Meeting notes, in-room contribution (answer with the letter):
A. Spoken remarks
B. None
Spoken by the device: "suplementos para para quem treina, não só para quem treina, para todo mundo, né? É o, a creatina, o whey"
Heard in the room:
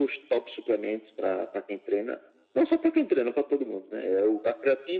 B